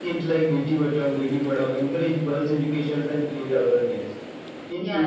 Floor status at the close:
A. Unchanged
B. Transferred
A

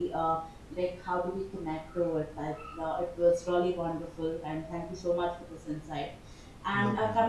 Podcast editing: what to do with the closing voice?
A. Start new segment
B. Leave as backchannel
B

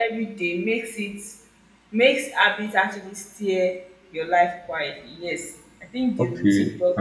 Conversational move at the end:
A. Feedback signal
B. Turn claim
B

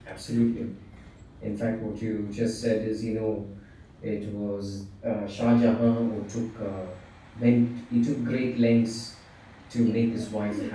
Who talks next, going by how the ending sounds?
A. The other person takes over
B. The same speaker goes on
A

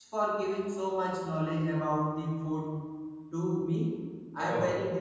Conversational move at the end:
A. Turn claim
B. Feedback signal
B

